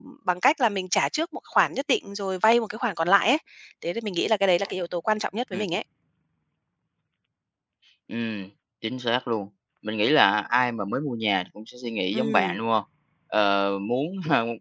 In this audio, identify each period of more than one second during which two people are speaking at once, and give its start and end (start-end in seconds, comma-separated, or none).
none